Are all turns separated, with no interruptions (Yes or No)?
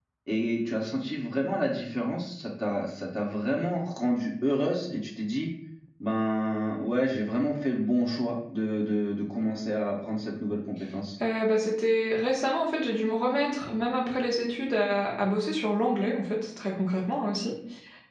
Yes